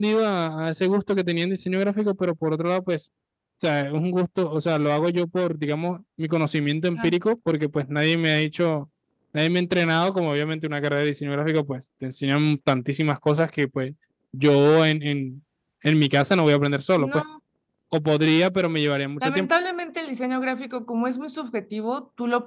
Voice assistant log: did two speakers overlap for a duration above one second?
No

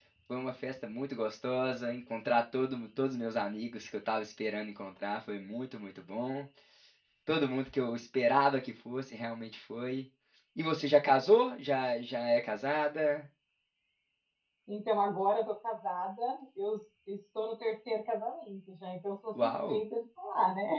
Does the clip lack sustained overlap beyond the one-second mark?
Yes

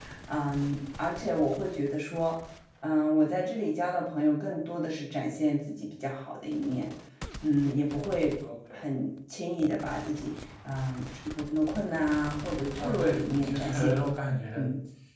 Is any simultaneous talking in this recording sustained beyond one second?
Yes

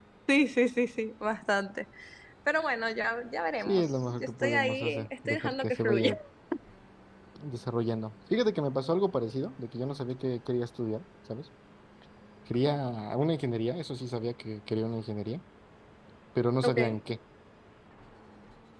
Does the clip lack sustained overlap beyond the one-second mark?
No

